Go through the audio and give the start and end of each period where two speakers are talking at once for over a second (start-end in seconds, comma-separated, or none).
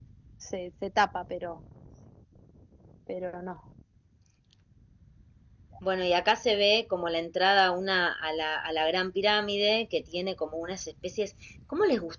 none